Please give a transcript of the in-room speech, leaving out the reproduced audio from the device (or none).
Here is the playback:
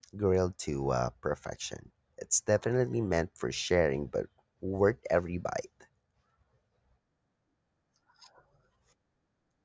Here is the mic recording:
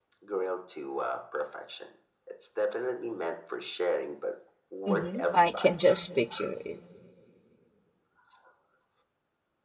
Mm-hmm. I can just picture it.